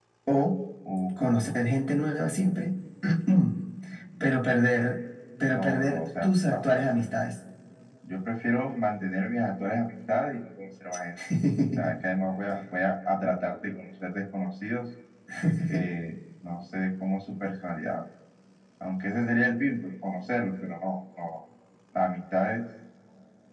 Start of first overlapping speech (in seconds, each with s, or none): 5.5 s